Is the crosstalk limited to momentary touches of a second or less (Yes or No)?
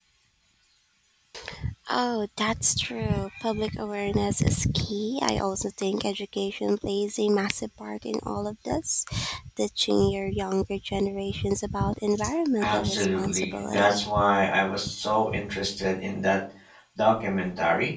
No